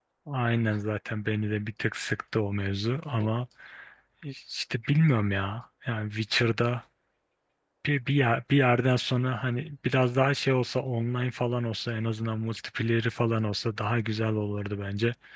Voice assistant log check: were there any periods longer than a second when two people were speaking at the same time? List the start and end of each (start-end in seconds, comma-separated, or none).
none